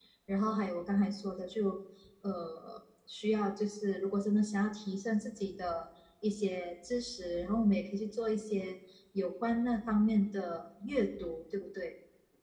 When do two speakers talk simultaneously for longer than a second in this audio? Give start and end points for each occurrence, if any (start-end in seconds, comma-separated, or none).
none